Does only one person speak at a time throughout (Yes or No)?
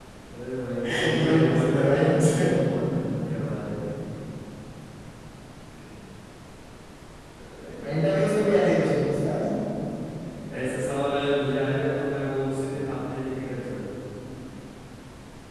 No